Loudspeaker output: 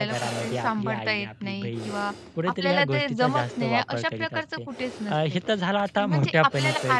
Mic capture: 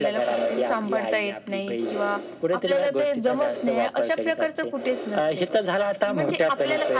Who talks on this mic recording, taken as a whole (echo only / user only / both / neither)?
echo only